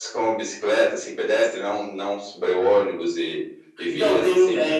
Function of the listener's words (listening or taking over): taking over